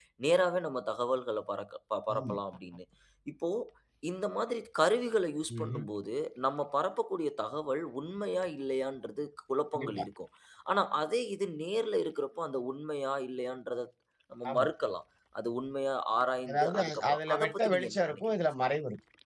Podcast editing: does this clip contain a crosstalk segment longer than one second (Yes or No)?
Yes